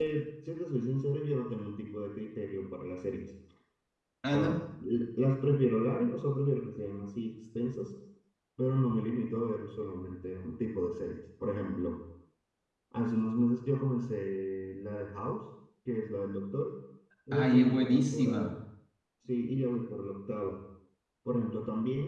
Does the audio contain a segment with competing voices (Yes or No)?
Yes